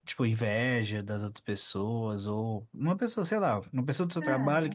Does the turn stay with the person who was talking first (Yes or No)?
Yes